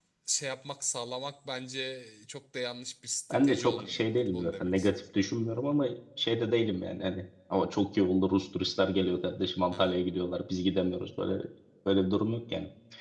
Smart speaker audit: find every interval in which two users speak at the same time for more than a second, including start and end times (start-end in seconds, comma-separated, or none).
3.3-5.0